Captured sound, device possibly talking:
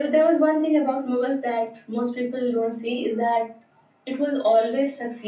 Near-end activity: none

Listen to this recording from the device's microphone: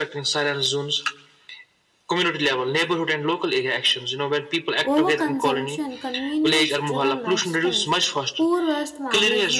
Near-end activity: present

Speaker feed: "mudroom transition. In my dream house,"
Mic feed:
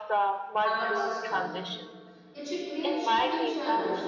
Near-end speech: present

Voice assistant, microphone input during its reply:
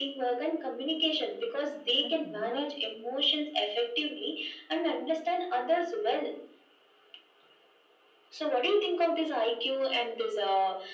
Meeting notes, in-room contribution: present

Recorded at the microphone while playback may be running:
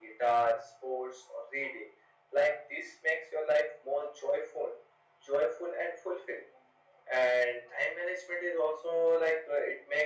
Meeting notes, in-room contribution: none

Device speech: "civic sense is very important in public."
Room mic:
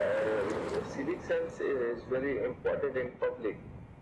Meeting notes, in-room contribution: none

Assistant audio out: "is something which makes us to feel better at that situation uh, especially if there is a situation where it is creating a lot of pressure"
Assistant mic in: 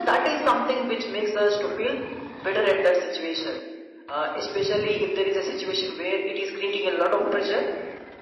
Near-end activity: none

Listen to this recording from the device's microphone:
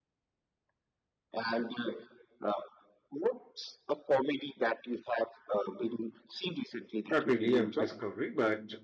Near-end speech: present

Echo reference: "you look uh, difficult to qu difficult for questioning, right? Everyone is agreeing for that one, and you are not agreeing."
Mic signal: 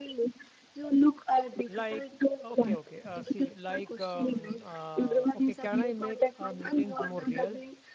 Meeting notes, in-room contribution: present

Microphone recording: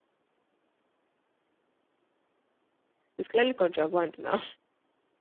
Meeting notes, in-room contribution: present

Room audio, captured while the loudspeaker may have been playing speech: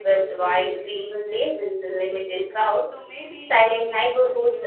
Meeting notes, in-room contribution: present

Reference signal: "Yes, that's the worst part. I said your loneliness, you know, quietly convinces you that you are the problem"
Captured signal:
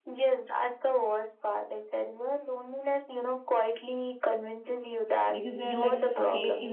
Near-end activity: present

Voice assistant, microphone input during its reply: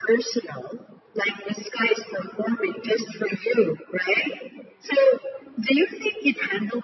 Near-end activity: none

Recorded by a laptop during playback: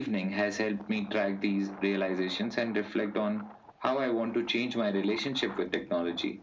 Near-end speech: none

